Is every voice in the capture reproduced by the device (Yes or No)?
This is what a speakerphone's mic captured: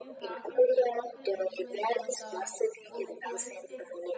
No